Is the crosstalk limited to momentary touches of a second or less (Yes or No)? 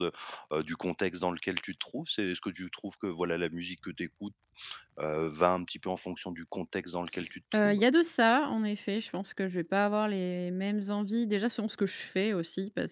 Yes